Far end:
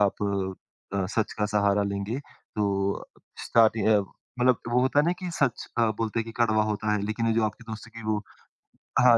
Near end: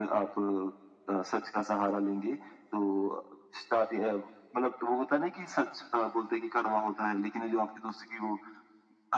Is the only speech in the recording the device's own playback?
Yes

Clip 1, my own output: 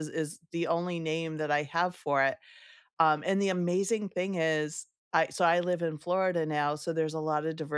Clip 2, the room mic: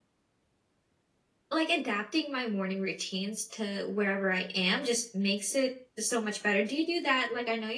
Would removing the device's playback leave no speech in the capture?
No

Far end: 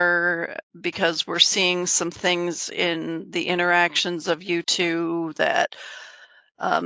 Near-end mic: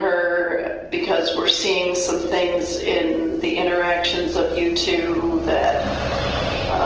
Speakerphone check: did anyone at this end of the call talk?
No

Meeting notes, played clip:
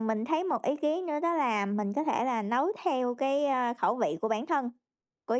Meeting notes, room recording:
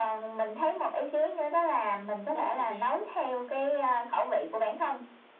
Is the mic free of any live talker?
No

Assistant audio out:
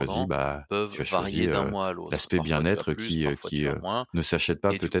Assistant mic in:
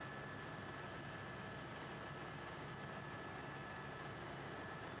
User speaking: No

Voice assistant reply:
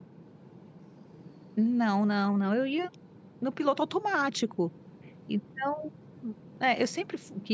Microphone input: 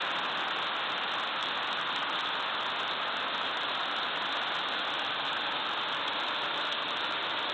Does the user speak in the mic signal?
No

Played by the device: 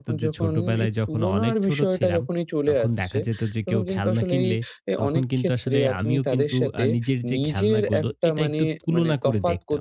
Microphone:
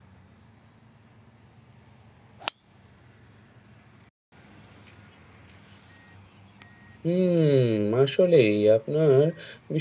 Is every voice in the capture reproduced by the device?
No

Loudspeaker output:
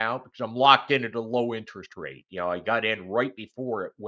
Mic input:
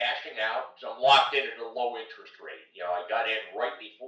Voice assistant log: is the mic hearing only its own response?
Yes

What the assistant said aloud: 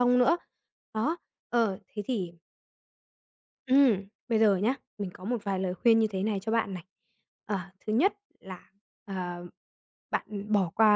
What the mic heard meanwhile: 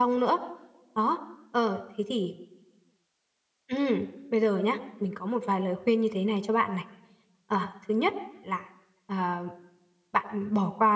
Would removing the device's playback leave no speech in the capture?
Yes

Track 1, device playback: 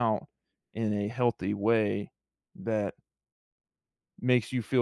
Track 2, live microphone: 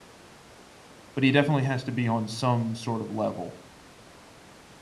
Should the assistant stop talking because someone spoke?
Yes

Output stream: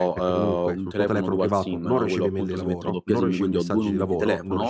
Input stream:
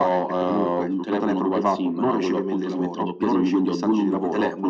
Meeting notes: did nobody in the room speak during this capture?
Yes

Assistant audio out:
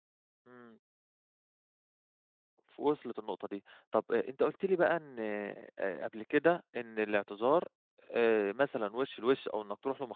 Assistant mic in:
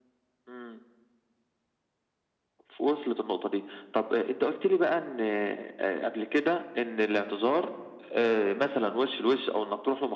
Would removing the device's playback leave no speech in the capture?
Yes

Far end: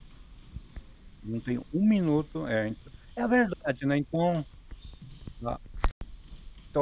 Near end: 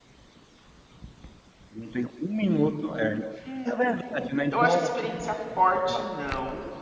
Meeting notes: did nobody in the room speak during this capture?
No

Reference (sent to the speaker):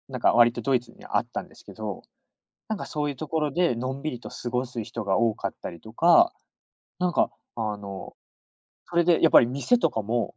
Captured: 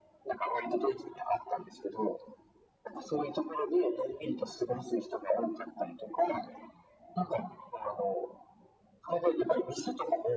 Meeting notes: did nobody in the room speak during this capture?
Yes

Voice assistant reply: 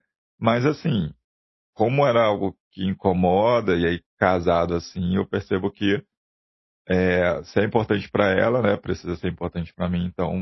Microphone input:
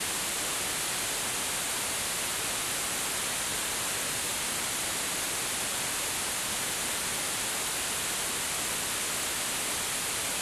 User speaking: No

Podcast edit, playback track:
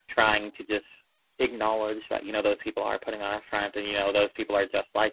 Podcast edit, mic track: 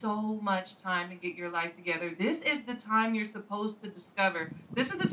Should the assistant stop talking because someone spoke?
Yes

